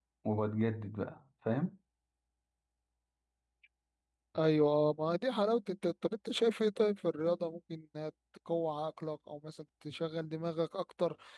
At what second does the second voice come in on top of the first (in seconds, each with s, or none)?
none